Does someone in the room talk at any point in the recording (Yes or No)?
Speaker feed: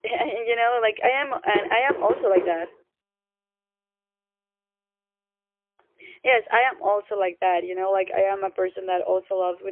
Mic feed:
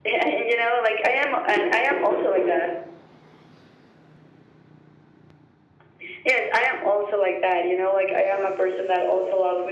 No